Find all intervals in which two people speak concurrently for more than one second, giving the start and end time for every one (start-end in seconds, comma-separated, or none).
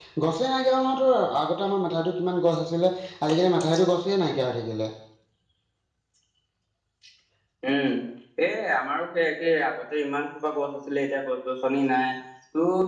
none